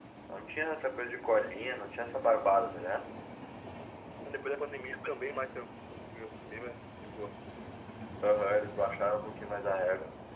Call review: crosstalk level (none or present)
none